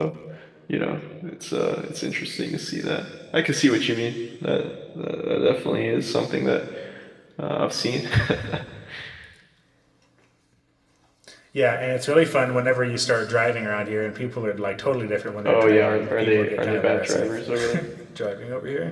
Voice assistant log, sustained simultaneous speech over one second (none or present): present